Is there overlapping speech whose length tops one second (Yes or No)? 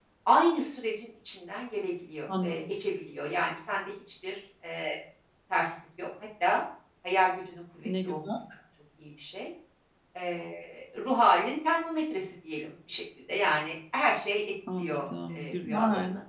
Yes